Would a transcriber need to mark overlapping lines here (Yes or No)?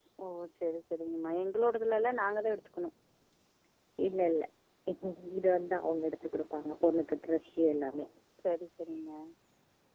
No